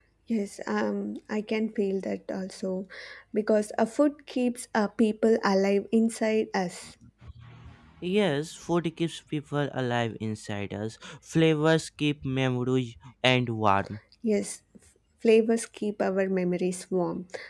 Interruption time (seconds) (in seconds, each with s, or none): none